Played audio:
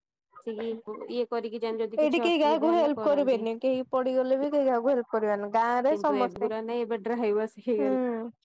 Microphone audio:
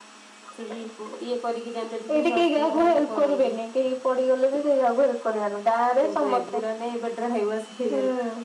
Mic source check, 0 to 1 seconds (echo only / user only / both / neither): echo only